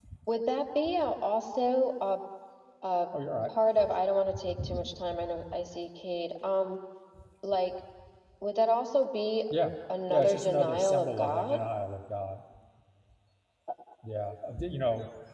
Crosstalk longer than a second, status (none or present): present